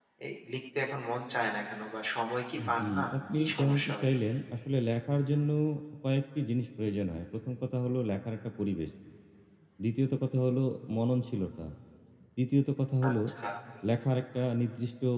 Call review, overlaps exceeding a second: present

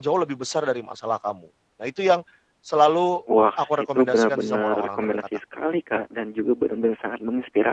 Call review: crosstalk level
present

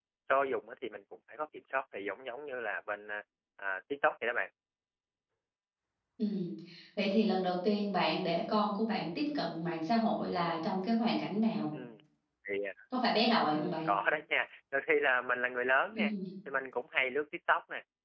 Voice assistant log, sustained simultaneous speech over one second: none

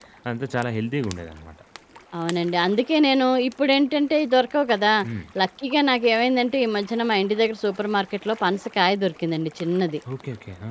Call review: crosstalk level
none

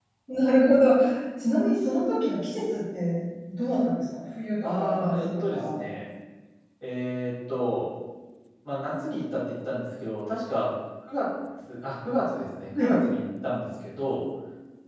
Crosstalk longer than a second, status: present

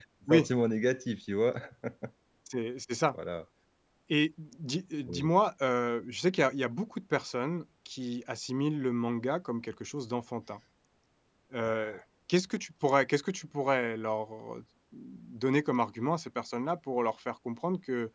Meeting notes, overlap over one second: none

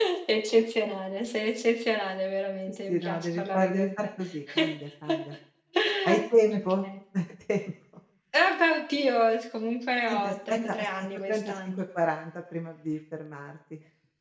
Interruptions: present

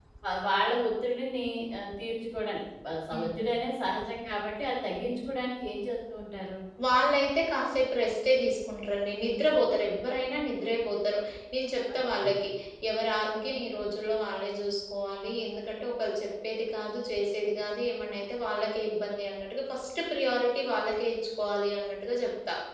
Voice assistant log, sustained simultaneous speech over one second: none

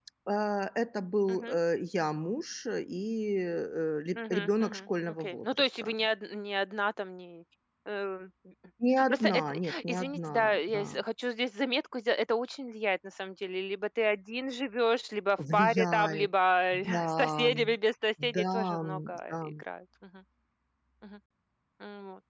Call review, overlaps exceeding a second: present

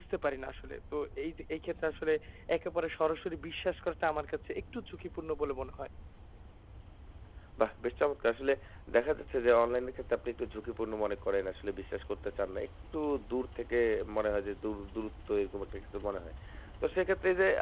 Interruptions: none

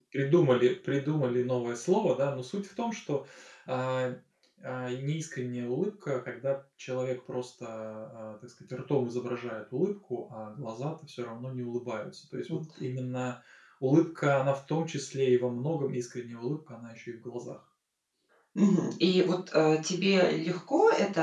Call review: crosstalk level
none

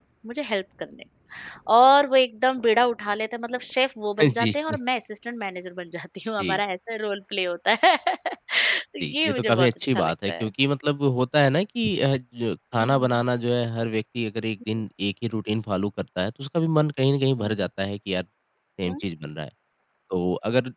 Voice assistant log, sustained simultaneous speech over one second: present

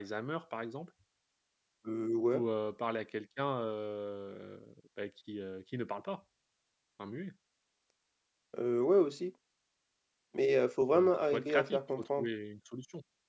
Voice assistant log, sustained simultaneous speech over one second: present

